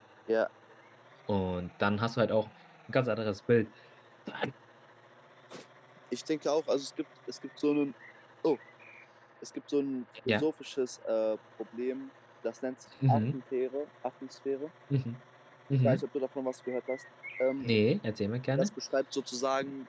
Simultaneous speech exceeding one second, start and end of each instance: none

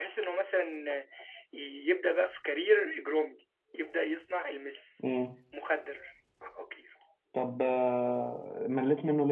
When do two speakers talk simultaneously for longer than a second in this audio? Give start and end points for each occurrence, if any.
none

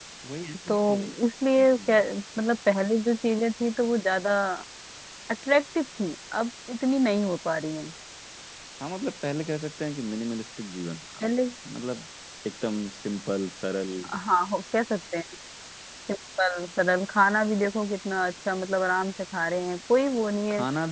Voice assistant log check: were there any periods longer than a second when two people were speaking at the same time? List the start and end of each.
none

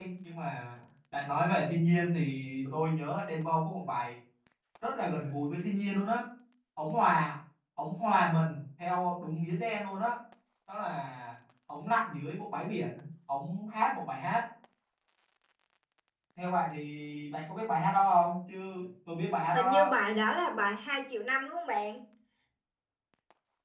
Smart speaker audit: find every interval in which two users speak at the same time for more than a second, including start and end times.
none

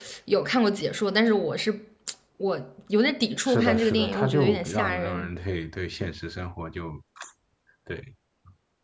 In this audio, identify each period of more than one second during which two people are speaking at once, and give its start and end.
3.4-5.3

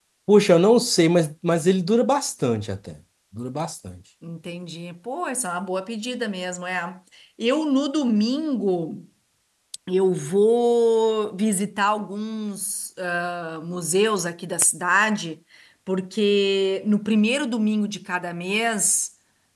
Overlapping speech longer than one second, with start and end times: none

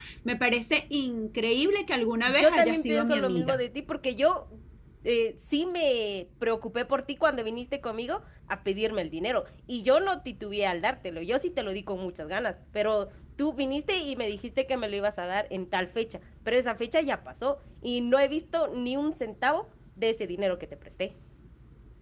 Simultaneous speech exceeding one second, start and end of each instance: 2.2-3.6

